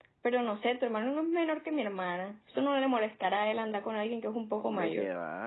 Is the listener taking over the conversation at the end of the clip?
Yes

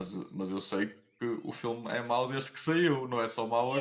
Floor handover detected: Yes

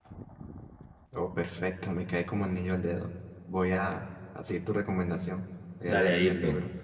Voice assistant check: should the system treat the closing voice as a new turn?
Yes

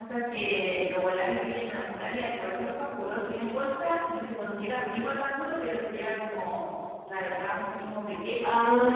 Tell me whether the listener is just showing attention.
No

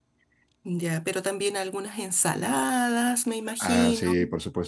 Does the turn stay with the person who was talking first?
No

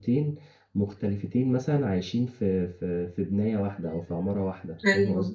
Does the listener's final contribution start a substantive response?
Yes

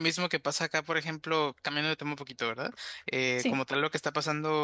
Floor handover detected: No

